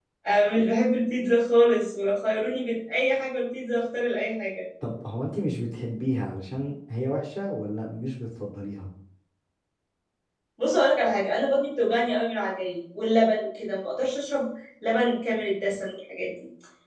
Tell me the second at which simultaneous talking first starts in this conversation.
none

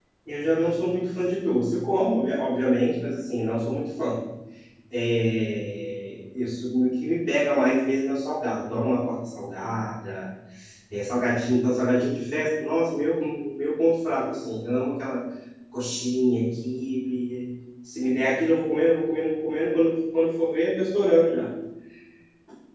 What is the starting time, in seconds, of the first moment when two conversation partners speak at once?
none

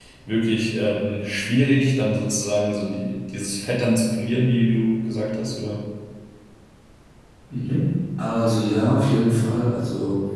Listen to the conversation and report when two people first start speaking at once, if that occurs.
none

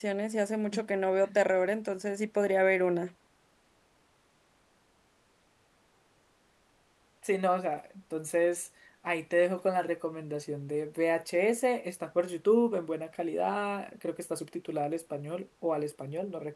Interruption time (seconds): none

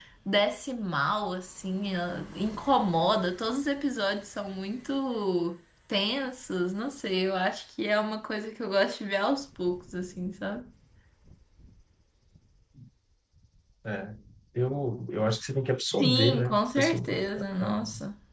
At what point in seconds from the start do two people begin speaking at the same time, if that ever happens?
16.0 s

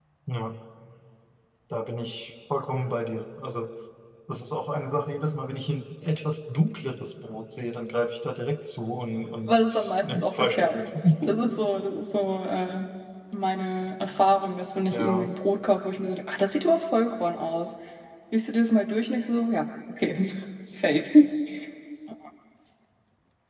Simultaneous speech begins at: 9.4 s

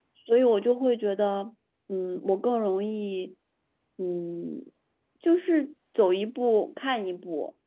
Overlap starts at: none

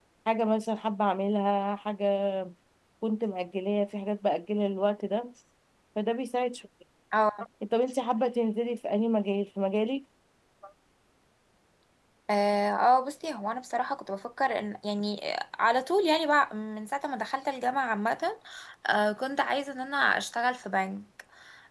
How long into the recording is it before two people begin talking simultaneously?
none

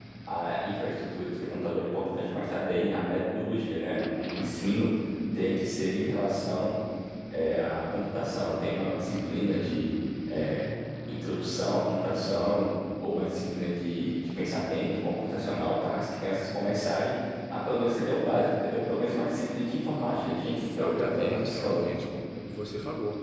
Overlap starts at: 20.4 s

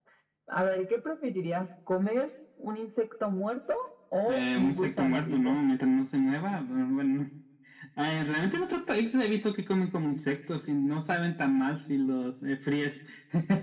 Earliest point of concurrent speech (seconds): 4.3 s

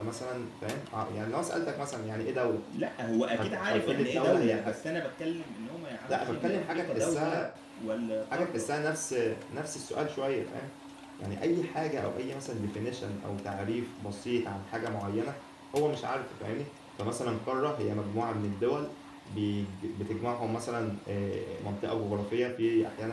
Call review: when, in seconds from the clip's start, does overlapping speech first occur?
3.3 s

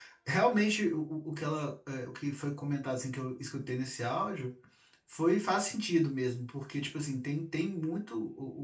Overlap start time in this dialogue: none

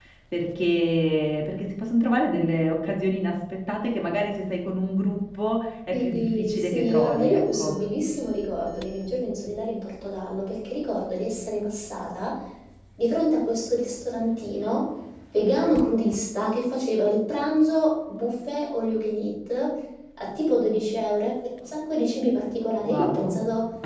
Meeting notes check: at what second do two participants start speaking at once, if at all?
5.9 s

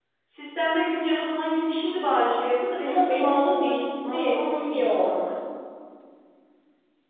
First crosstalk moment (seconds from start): 2.8 s

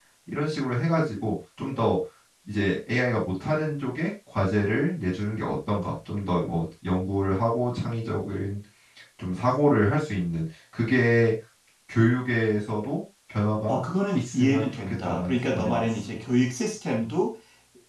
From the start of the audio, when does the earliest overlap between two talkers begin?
14.1 s

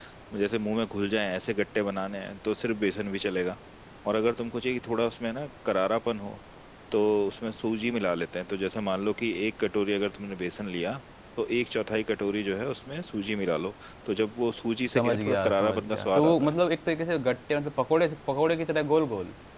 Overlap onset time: 14.9 s

